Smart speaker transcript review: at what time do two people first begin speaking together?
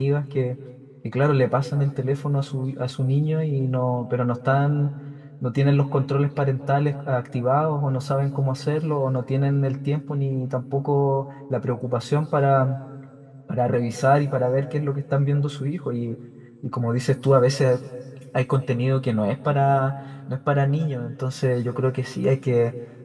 none

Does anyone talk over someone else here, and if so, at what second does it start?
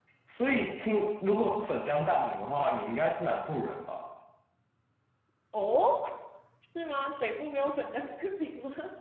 none

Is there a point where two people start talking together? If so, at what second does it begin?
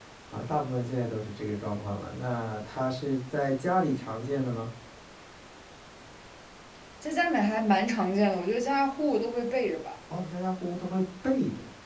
none

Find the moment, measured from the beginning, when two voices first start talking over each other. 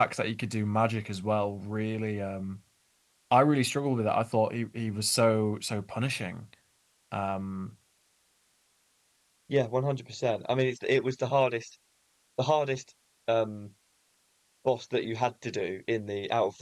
none

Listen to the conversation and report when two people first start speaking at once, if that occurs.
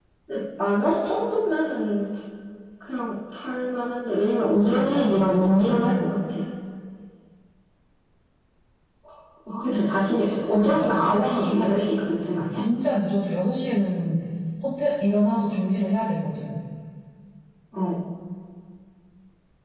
4 s

